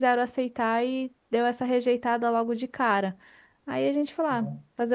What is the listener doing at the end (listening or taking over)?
listening